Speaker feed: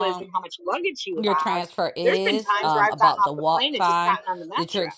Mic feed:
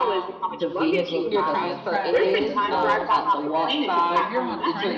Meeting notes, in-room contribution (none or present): present